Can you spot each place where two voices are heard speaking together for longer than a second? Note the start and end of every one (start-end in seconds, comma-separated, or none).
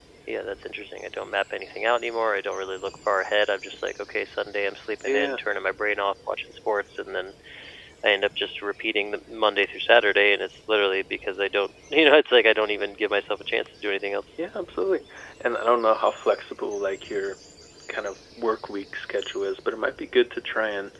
none